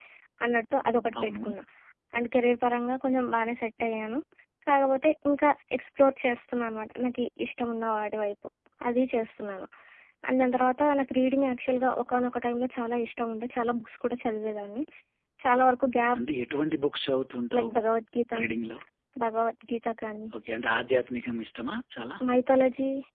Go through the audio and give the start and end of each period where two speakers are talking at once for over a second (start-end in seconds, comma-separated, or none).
none